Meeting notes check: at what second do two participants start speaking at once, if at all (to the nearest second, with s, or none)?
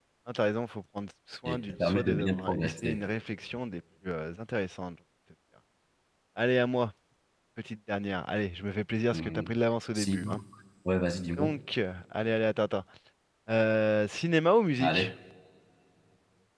1 s